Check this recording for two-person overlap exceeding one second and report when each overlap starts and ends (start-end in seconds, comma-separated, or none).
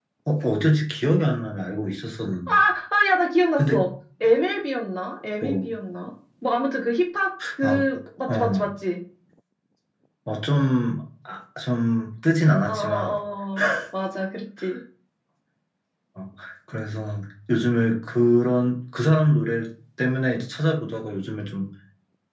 none